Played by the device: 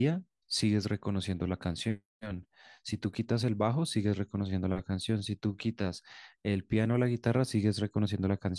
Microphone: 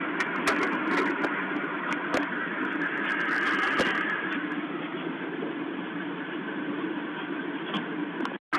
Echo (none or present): none